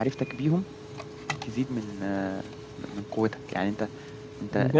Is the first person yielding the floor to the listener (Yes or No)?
Yes